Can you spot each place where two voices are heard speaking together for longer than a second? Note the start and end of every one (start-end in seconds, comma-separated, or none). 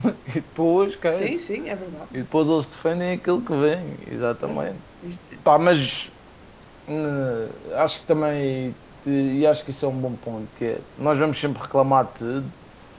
none